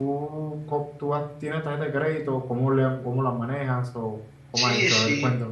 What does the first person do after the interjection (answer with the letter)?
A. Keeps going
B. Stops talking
B